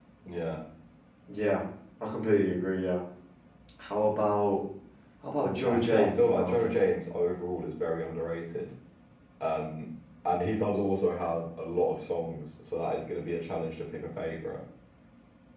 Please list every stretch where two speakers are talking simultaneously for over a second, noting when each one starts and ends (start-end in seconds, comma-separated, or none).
5.4-6.9